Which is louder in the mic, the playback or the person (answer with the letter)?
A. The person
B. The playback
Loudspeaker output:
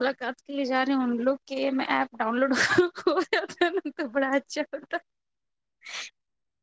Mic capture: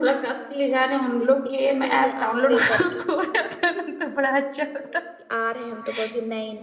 B